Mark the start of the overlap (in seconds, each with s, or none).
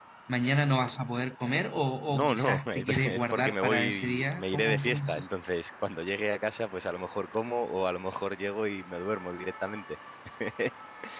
2.1 s